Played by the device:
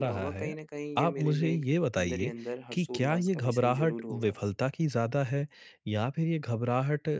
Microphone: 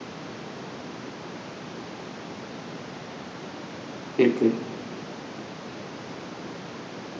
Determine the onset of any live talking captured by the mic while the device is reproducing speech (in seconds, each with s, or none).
4.2 s